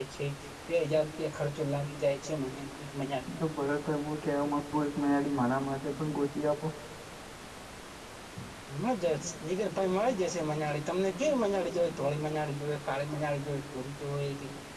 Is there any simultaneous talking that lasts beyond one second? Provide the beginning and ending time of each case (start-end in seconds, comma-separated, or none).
none